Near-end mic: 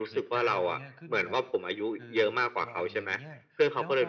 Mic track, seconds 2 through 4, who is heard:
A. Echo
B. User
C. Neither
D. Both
D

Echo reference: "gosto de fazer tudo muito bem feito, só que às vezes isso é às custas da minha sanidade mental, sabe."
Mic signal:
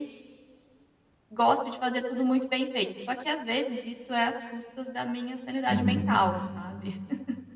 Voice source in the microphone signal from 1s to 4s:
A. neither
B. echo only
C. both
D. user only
B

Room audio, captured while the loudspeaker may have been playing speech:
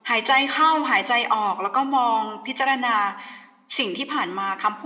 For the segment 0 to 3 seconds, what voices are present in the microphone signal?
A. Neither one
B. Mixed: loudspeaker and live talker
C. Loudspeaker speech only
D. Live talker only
C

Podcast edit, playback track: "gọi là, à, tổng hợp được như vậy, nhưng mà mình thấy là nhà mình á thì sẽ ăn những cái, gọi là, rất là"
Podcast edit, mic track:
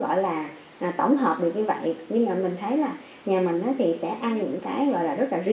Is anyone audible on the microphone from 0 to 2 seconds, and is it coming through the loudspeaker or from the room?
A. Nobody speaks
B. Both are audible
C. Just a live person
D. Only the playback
D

